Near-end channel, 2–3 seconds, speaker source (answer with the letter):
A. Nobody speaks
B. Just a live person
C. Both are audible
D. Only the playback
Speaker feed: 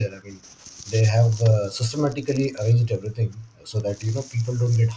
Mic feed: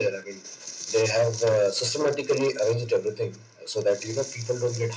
D